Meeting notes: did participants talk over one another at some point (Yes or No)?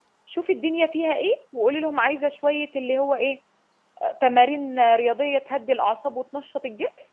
No